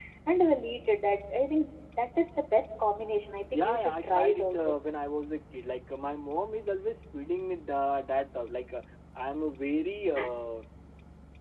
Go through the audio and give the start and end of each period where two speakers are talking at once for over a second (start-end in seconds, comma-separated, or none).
3.5-4.7